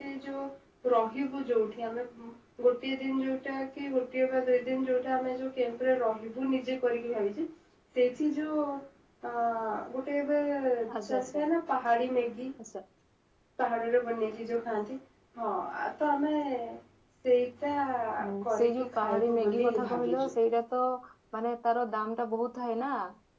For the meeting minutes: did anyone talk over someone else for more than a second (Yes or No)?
Yes